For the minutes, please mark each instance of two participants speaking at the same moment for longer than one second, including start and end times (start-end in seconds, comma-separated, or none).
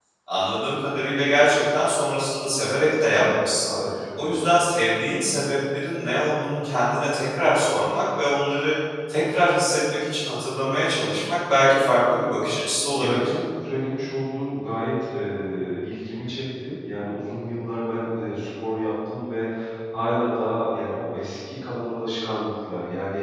none